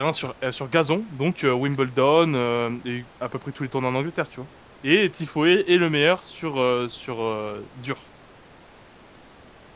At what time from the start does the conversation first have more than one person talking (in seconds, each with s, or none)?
none